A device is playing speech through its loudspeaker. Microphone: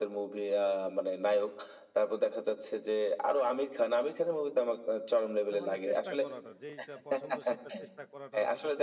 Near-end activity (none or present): present